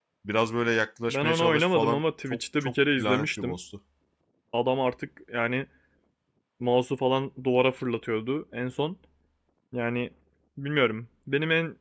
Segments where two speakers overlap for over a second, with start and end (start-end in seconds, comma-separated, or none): 1.1-3.6